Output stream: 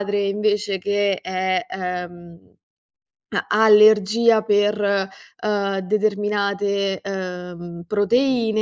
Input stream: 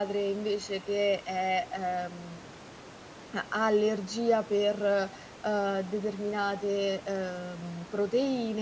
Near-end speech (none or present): none